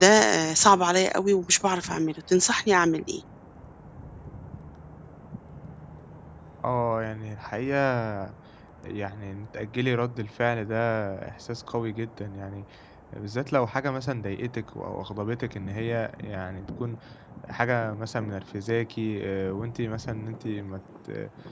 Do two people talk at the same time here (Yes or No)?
No